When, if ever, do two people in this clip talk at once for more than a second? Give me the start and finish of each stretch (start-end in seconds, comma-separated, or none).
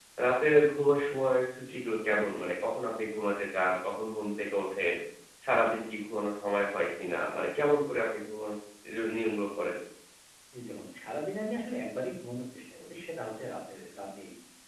none